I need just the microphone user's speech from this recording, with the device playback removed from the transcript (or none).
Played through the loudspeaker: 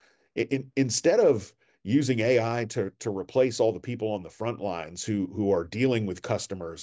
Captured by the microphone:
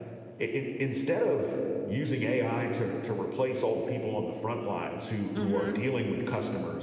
Mm-hmm.